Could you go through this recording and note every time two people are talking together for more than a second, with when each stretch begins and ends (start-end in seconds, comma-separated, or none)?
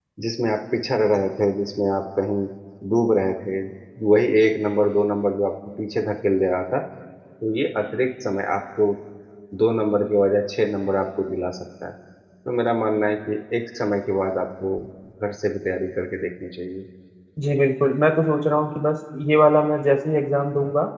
none